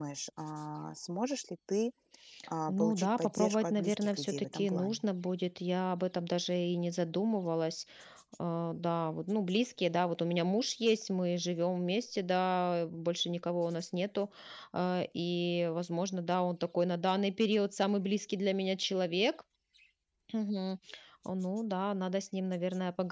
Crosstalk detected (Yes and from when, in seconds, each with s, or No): Yes, from 2.7 s